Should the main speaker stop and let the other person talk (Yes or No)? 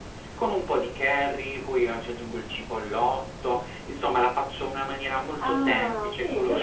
Yes